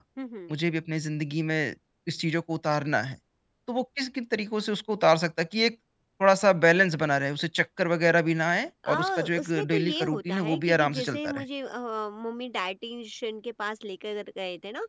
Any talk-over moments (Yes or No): Yes